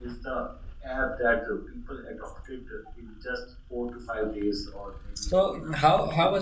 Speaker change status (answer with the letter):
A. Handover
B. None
A